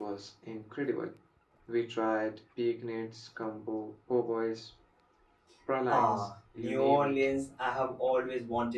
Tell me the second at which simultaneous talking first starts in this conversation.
5.9 s

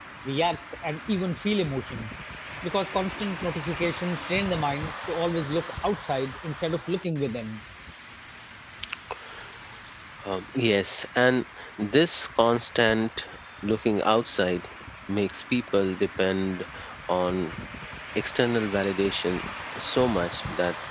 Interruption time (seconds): none

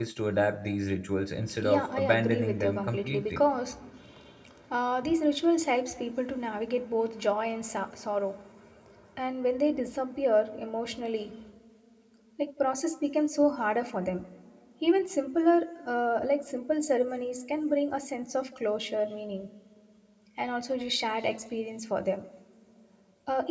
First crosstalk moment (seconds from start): 1.6 s

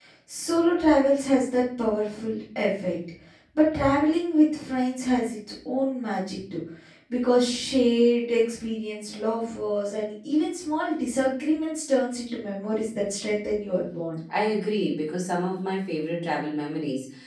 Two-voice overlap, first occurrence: none

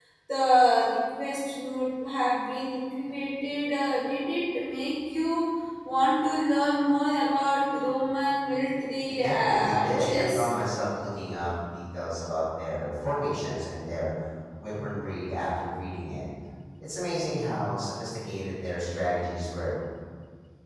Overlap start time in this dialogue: 9.2 s

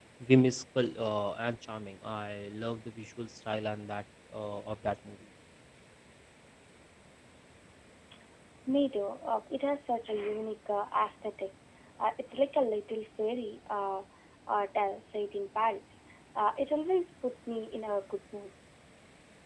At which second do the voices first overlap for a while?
none

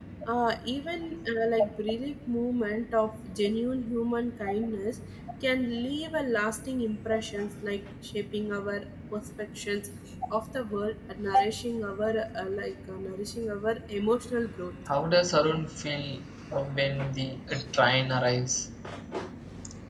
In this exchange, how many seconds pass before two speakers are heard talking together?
none

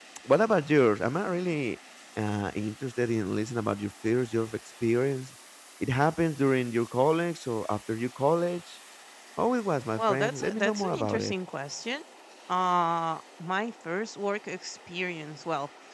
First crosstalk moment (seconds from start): 10.0 s

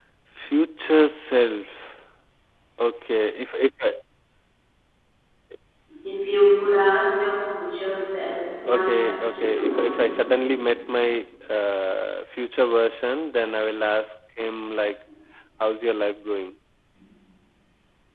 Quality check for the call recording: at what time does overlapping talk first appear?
8.7 s

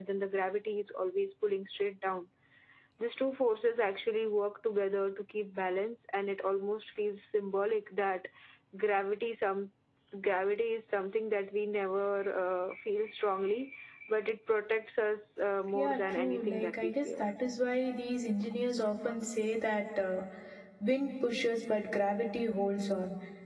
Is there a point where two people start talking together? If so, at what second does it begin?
15.7 s

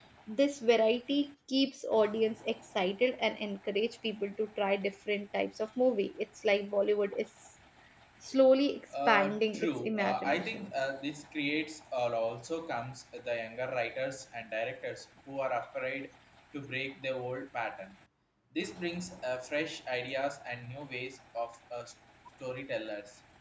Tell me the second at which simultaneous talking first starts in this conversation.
9.0 s

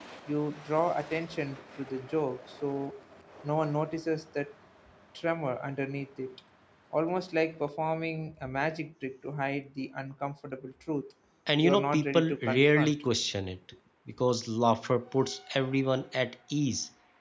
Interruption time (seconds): 11.6 s

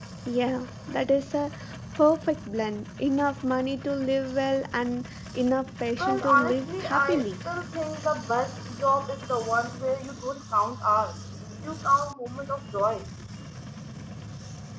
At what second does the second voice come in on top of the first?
6.0 s

